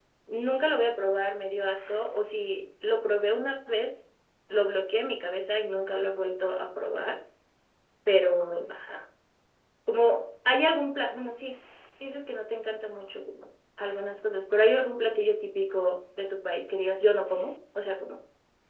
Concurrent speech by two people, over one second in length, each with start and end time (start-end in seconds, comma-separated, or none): none